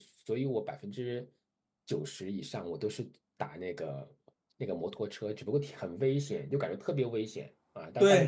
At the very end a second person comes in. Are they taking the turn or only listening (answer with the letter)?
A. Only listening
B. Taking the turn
B